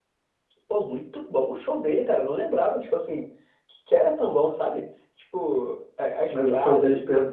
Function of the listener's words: taking over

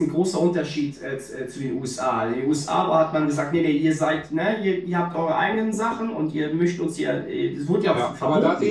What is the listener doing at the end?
taking over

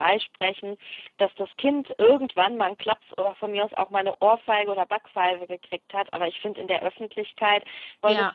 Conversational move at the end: listening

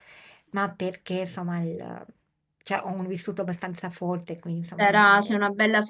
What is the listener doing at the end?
taking over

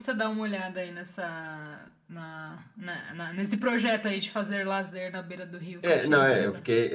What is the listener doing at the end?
taking over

